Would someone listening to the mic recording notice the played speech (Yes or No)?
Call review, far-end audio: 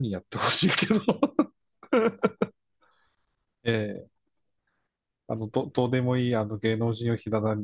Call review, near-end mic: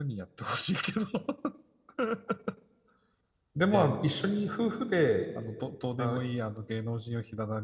Yes